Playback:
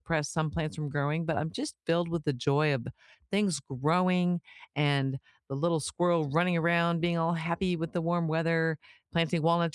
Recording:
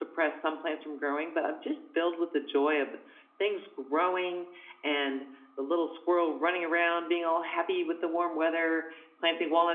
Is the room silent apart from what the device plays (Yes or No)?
Yes